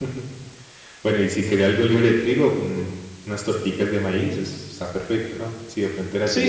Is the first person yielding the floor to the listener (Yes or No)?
Yes